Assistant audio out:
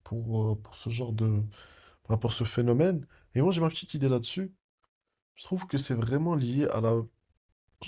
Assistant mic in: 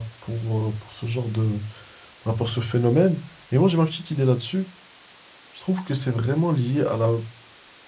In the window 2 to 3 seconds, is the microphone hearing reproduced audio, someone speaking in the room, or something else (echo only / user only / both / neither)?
echo only